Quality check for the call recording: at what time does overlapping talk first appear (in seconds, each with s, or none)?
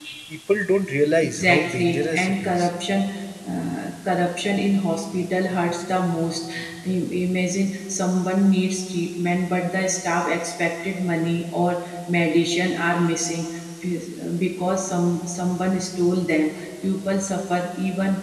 1.2 s